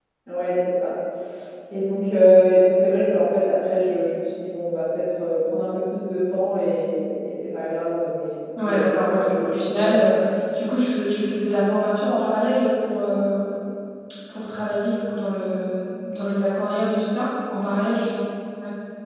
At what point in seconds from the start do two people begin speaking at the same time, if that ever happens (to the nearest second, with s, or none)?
9 s